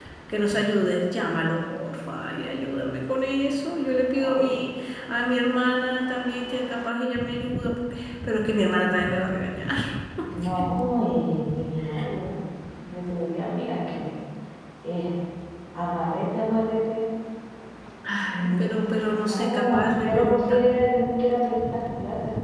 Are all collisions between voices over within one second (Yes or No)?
No